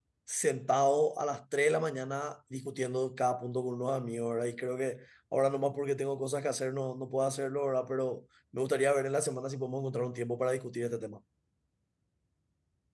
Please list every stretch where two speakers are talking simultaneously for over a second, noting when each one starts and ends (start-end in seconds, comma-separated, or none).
none